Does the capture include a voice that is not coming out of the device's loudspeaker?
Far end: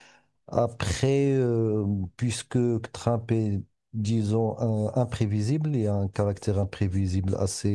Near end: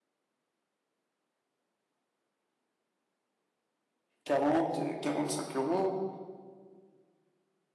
Yes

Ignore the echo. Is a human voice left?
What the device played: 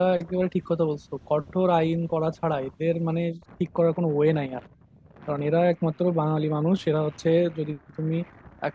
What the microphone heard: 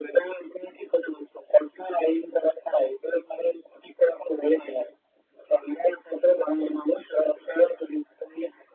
No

